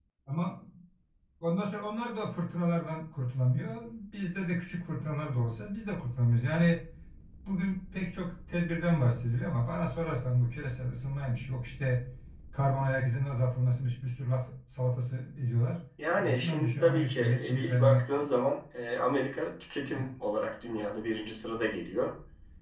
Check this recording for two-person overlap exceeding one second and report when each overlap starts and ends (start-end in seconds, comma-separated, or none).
16.1-18.4